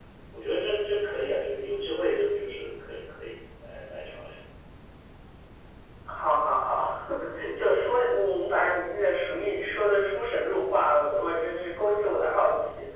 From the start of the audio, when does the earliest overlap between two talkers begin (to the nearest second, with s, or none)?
none